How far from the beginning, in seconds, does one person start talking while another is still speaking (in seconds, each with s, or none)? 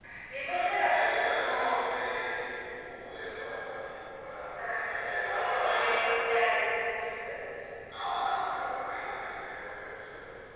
0.5 s